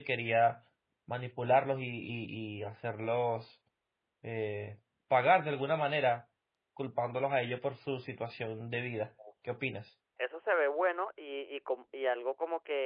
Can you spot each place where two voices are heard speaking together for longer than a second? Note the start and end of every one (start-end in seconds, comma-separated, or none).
none